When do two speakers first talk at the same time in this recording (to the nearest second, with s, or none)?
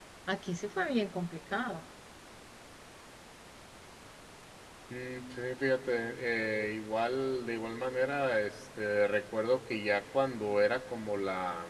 none